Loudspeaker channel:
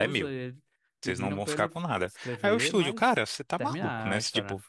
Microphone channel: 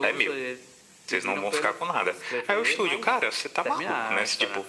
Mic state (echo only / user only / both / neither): echo only